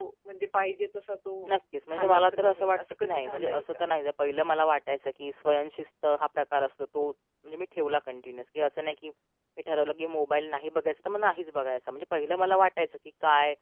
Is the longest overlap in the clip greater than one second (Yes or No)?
Yes